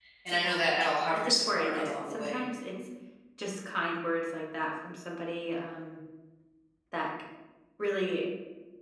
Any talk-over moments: Yes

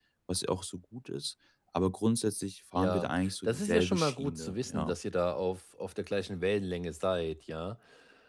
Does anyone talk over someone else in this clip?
Yes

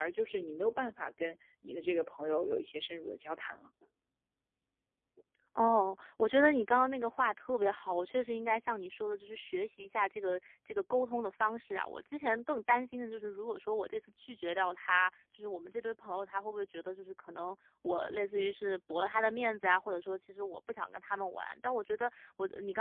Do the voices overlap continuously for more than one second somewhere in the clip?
No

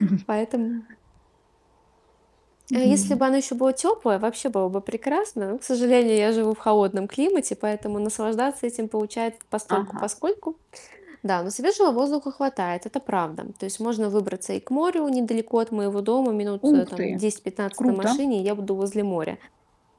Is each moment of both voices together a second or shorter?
Yes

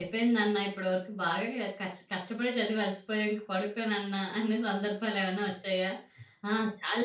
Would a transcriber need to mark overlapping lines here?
No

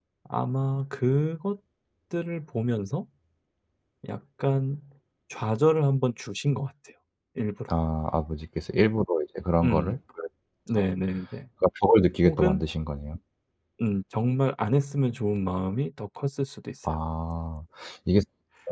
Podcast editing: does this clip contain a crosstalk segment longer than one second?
No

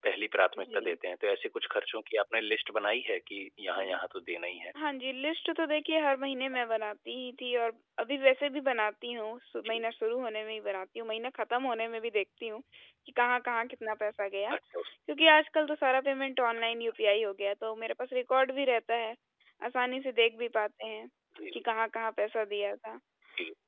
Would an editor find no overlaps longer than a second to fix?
Yes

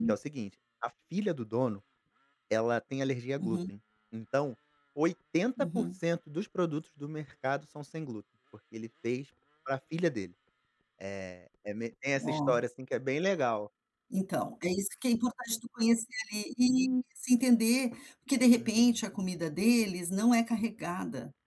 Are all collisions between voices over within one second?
Yes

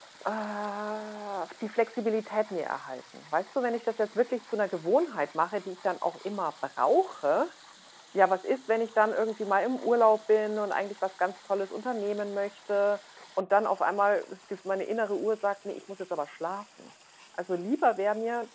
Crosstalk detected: No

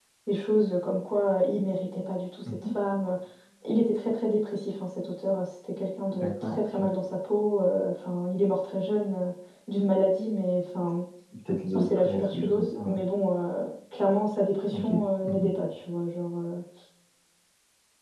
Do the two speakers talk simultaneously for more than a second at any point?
Yes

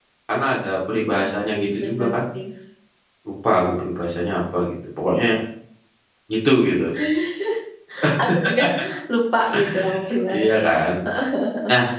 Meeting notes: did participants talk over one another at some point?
Yes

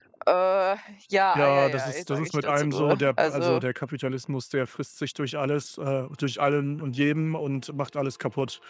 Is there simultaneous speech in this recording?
Yes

